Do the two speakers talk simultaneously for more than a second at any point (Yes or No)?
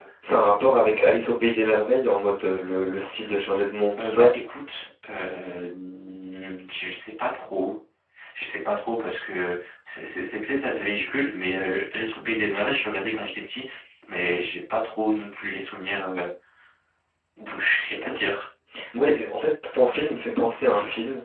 No